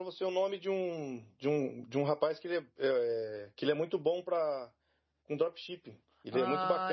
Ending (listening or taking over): taking over